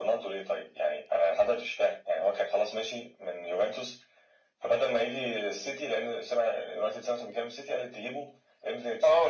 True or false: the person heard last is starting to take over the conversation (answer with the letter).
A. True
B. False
A